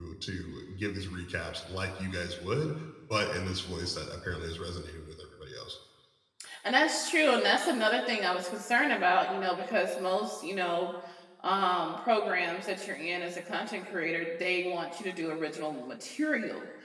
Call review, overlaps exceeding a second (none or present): none